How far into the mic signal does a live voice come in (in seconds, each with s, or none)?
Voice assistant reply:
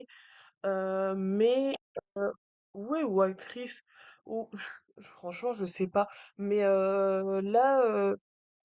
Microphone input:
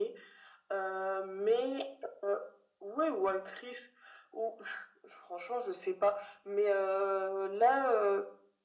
none